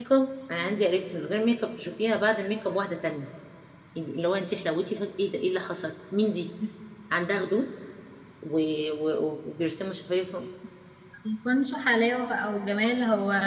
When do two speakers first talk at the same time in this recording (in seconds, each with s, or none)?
none